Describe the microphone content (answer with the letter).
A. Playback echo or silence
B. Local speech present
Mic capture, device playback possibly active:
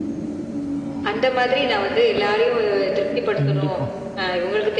B